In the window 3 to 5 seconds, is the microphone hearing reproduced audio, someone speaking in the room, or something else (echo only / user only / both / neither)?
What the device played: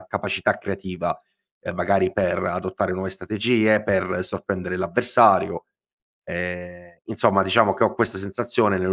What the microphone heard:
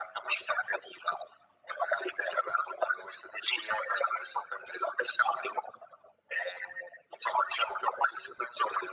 echo only